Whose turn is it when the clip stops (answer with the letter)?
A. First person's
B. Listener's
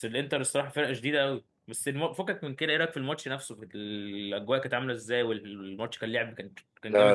B